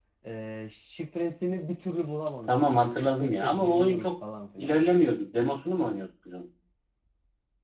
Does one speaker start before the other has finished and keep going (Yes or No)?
Yes